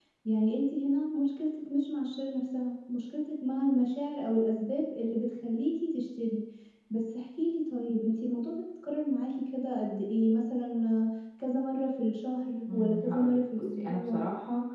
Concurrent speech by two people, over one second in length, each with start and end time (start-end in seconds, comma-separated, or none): 12.7-14.2